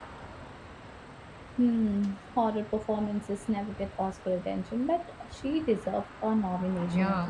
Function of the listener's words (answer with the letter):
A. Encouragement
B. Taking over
B